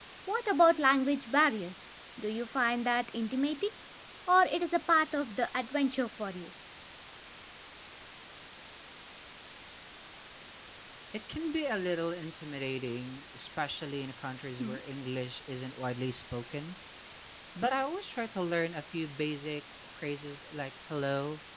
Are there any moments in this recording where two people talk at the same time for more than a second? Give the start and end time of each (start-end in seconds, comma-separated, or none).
none